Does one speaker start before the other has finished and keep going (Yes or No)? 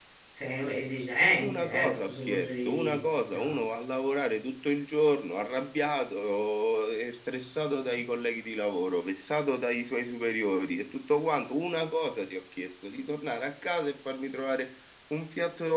Yes